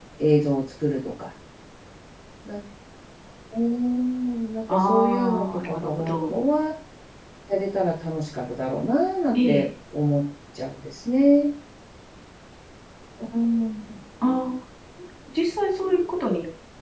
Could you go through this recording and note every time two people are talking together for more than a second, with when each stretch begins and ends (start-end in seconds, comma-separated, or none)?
4.7-6.4